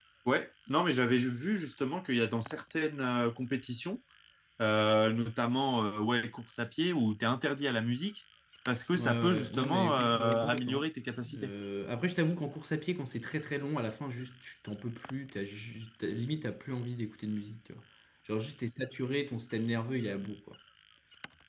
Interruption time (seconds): 8.9 s

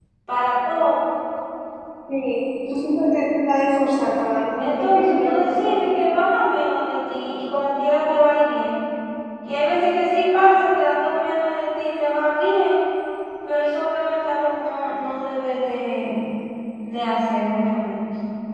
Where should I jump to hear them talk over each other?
4.6 s

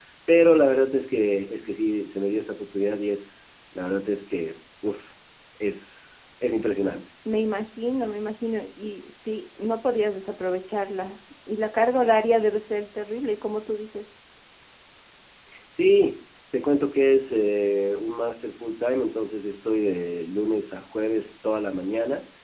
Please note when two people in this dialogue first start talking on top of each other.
none

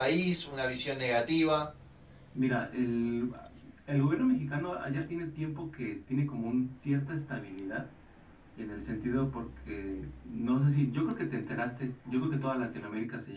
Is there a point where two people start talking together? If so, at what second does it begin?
none

